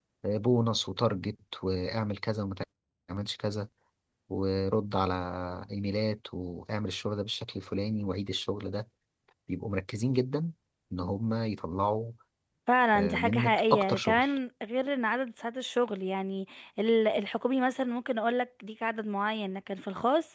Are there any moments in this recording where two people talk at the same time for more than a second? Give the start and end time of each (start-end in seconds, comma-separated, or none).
12.9-14.2